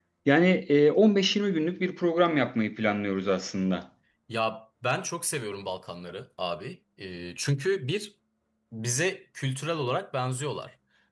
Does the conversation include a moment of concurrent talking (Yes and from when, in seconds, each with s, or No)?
No